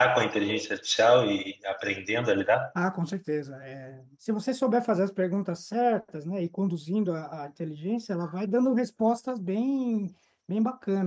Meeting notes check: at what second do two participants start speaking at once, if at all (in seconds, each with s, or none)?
none